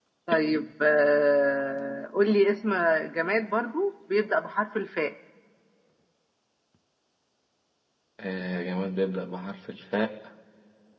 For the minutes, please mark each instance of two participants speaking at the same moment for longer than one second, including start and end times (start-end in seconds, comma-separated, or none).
none